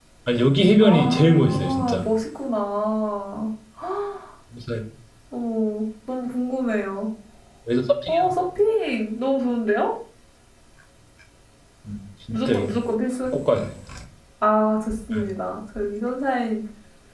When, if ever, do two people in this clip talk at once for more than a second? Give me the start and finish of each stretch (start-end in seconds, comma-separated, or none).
0.8-2.0